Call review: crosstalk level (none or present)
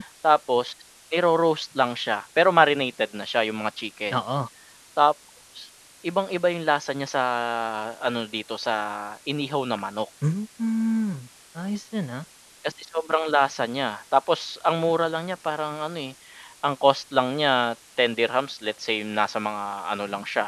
none